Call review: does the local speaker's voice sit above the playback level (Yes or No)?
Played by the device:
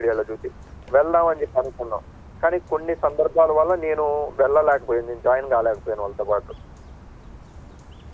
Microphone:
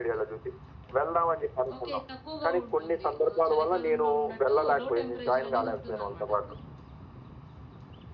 No